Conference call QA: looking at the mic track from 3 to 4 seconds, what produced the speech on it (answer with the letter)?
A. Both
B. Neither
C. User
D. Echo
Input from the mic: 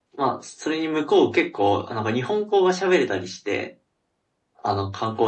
D